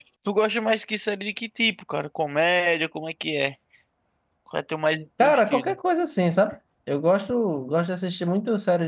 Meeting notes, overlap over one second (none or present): none